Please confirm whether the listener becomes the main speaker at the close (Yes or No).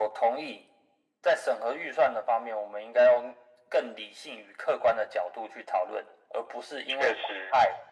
No